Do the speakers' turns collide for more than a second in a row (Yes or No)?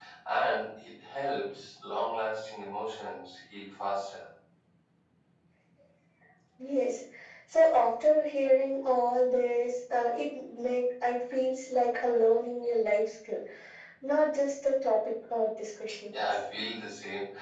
No